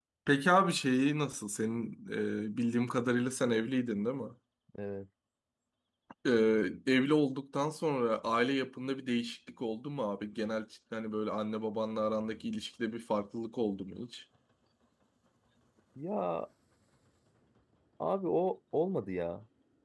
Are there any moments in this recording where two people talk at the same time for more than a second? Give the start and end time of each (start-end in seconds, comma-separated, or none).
none